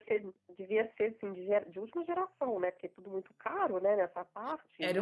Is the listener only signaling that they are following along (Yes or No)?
No